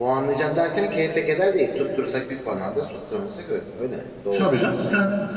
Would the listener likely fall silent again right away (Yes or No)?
No